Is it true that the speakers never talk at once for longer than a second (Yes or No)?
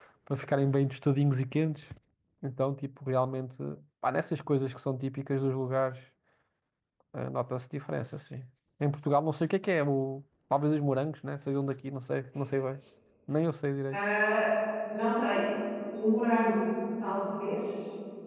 Yes